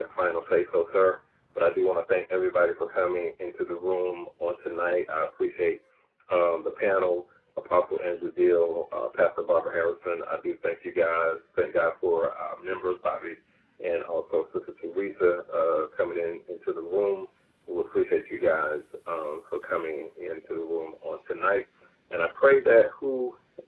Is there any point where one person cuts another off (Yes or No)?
No